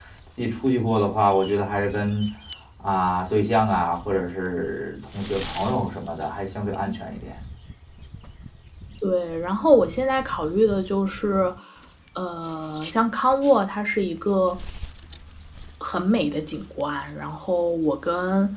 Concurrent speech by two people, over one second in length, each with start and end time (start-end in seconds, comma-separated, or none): none